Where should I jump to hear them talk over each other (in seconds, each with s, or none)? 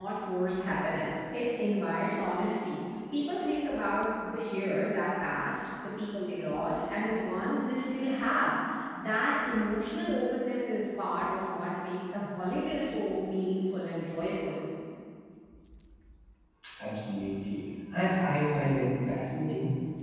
none